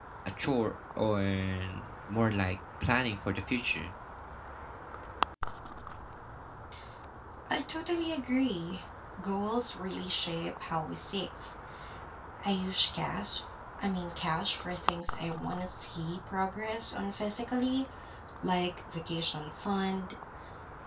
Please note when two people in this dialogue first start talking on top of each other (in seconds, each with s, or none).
none